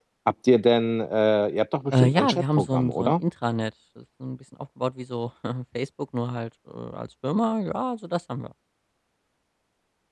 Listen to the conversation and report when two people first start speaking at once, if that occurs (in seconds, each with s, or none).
1.9 s